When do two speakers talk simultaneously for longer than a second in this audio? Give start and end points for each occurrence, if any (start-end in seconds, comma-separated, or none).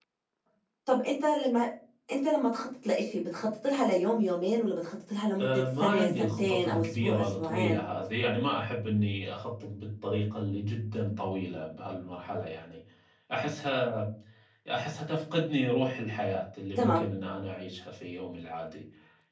5.4-7.8